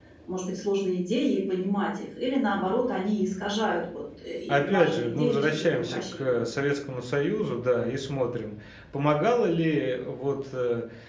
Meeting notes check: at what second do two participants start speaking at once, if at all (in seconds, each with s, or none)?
4.5 s